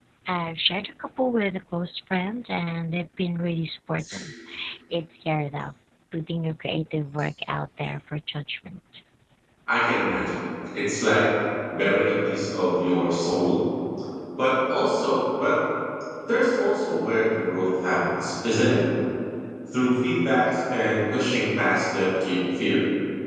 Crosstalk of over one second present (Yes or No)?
No